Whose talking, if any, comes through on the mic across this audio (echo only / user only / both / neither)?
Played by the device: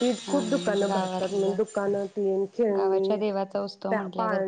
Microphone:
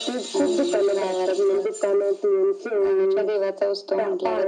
echo only